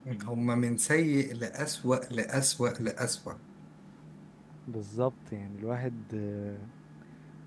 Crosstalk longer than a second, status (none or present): none